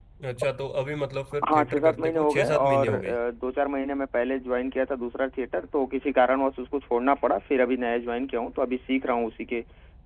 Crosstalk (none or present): present